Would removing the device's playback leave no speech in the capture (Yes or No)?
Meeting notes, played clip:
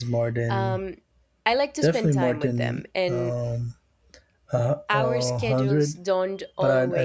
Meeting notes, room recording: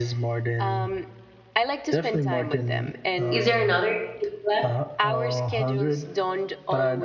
No